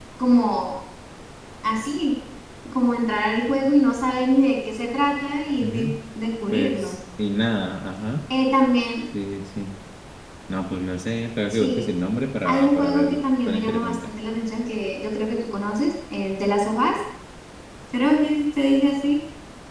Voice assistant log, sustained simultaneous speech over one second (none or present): present